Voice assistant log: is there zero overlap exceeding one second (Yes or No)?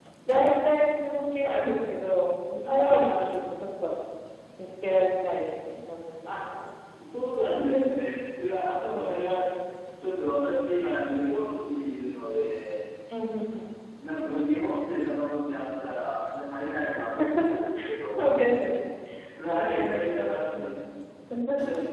No